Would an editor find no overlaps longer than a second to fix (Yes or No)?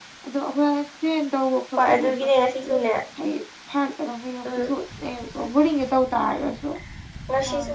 Yes